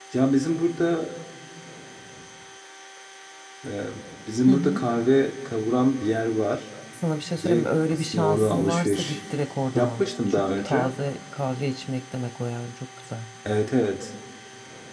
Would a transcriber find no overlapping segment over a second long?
No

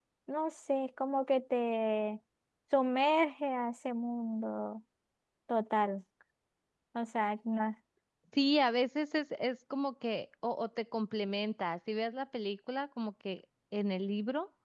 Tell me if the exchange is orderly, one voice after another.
Yes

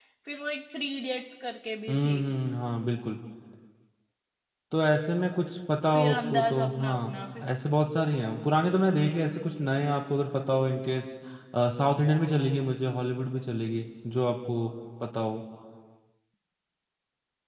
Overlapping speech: Yes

